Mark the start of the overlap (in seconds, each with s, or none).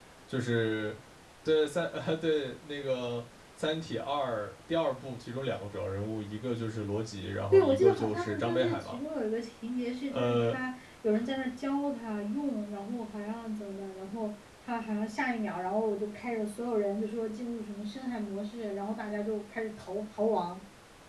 7.5 s